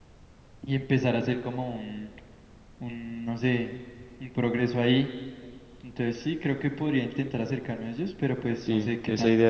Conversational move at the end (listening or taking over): taking over